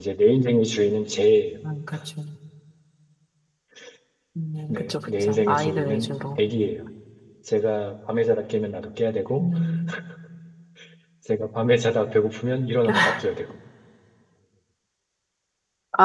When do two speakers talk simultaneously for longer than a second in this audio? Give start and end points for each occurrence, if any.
4.7-6.1

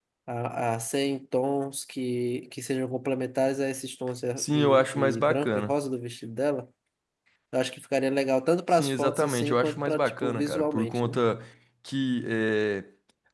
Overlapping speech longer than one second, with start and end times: 4.4-5.7, 8.7-11.2

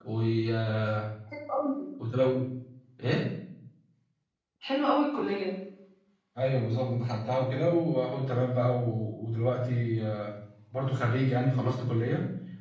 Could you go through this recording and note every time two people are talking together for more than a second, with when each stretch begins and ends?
none

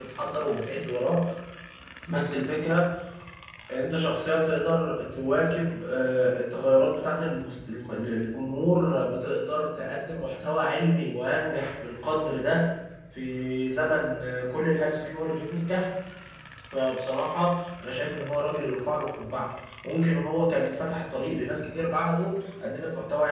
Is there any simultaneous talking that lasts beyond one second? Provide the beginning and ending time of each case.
none

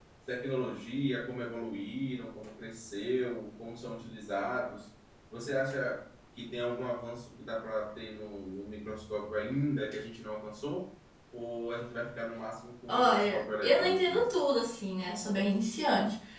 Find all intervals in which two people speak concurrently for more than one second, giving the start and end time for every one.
12.9-14.3

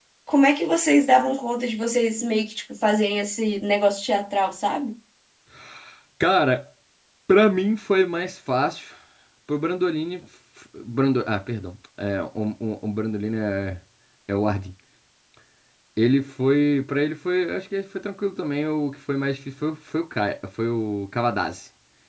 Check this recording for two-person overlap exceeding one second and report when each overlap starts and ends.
none

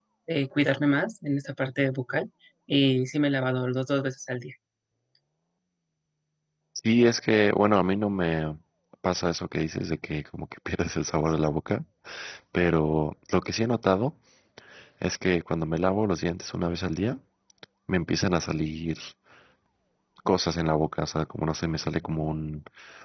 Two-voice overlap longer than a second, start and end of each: none

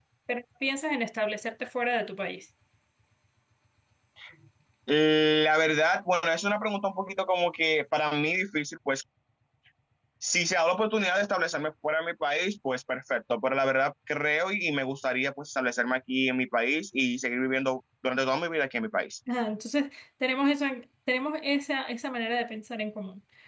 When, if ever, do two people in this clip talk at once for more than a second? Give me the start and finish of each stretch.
none

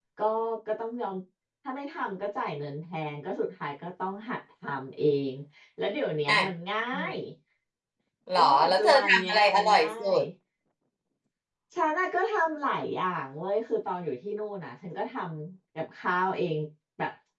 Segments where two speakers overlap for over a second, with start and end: 8.4-10.2

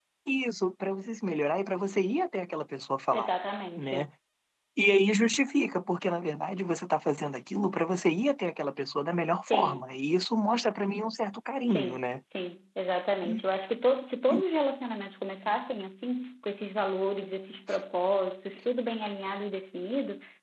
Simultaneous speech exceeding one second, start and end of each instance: none

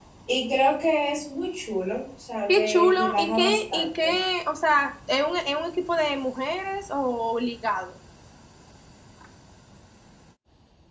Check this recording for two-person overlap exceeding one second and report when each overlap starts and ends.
2.5-4.1

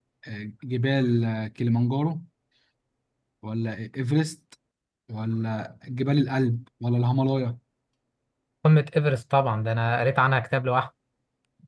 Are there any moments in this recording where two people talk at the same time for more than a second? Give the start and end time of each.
none

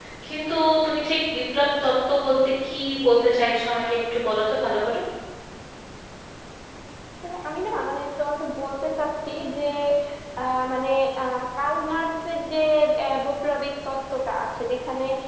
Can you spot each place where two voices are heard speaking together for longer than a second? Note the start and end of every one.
none

